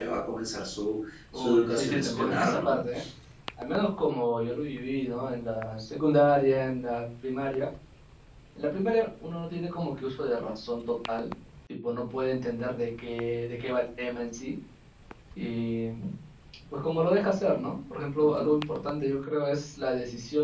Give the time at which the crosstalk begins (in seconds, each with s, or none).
1.3 s